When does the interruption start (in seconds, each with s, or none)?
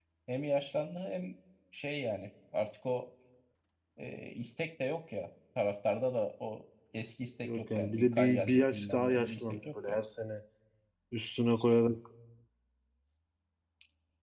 7.4 s